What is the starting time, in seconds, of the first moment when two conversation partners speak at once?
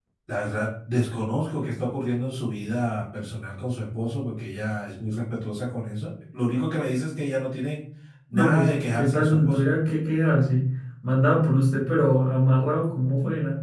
8.3 s

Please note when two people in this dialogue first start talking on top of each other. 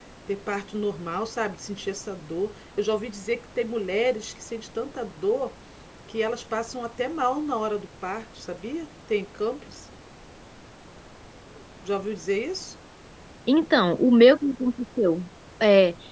none

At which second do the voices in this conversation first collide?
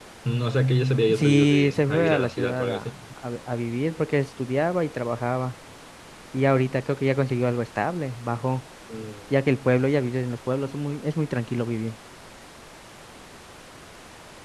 1.1 s

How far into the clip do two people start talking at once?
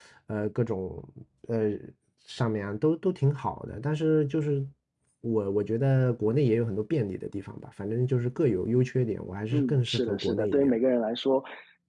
9.5 s

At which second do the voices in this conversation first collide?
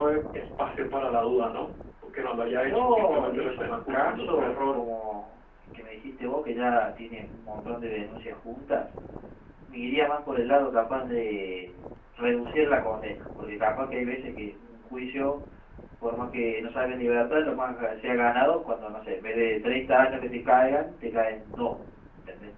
2.5 s

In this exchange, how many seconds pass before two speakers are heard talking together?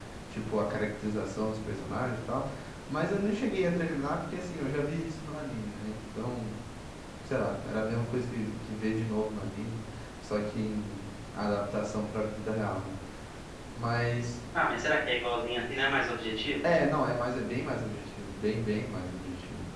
none

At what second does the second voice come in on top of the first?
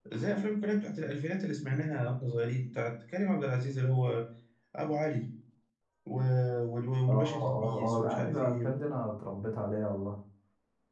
7.1 s

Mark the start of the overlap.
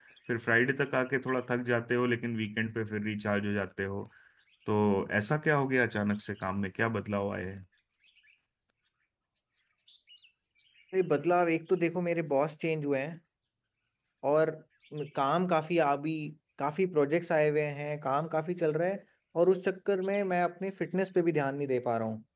none

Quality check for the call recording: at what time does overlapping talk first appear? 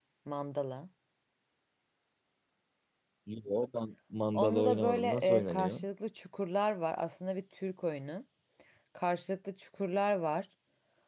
4.3 s

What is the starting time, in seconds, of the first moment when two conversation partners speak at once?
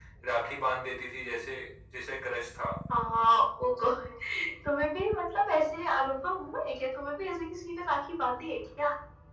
none

